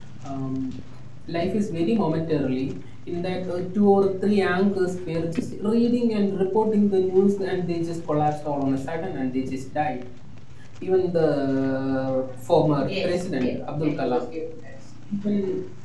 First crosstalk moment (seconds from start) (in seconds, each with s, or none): 12.8 s